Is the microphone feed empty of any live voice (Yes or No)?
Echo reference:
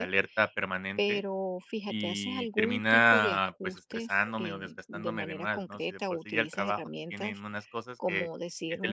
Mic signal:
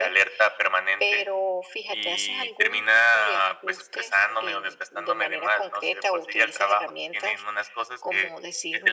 Yes